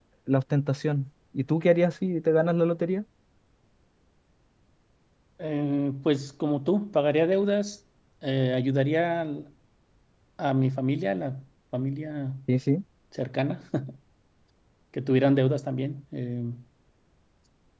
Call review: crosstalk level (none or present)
none